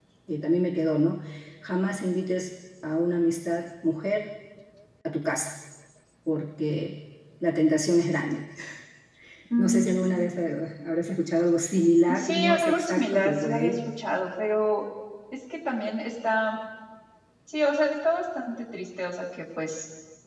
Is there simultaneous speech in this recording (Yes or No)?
Yes